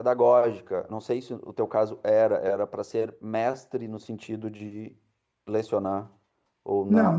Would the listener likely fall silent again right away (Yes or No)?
No